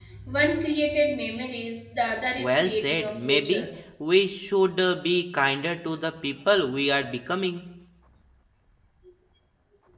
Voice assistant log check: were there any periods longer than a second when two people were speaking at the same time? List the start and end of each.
2.4-3.6

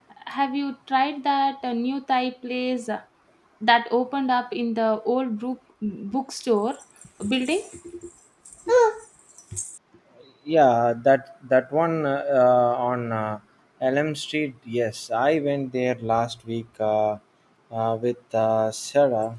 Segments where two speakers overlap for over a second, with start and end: none

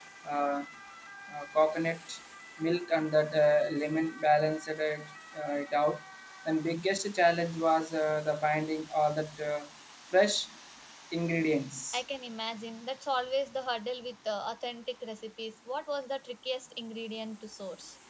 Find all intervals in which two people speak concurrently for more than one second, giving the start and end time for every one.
none

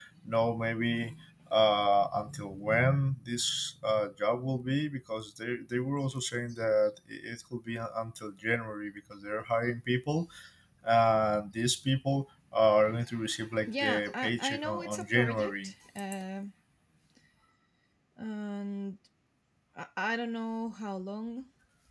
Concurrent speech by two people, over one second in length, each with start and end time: 13.7-15.7

